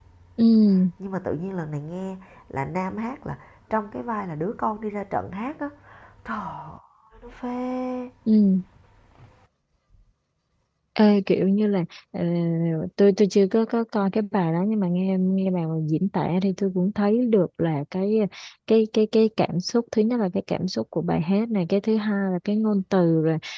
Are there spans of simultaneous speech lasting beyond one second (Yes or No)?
No